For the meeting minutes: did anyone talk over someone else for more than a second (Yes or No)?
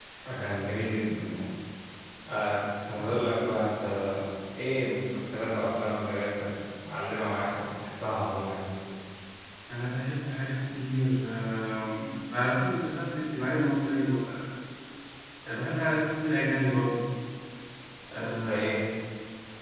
No